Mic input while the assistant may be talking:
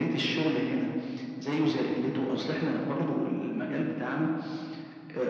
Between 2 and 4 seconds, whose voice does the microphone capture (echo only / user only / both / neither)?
echo only